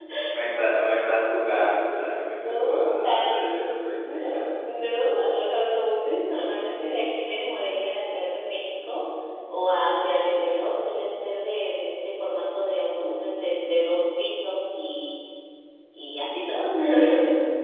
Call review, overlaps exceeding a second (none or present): present